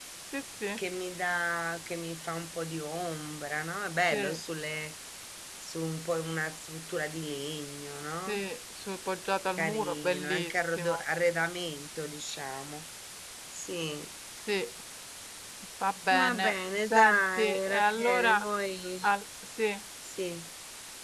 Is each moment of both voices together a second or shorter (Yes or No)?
No